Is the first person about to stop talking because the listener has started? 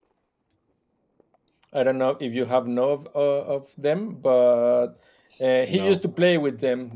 No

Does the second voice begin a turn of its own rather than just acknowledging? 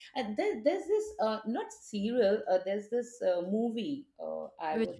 No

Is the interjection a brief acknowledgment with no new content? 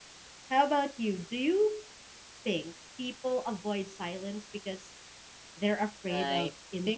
No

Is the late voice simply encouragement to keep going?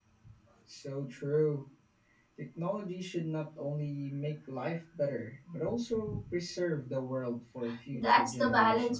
No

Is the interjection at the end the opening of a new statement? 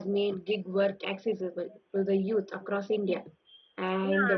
Yes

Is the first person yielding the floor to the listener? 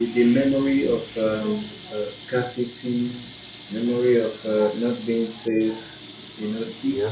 No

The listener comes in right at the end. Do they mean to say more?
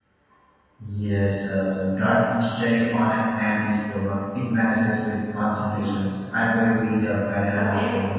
Yes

